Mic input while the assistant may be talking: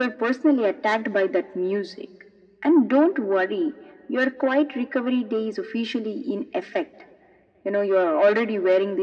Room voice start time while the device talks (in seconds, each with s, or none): none